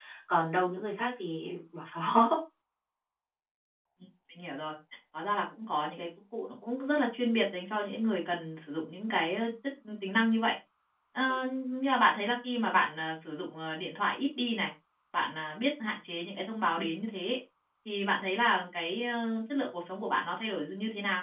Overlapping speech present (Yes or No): No